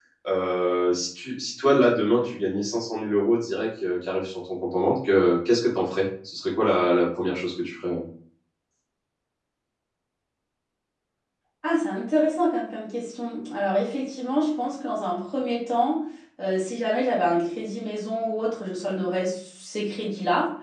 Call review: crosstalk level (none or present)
none